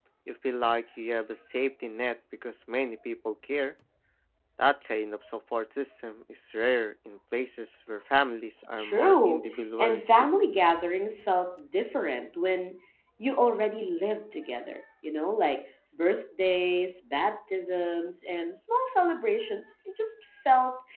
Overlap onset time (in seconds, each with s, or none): 8.8 s